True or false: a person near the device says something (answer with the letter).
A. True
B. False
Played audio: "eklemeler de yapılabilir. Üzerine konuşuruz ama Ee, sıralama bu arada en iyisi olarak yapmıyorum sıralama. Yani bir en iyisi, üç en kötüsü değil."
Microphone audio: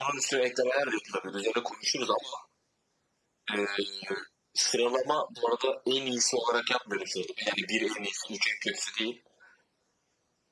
B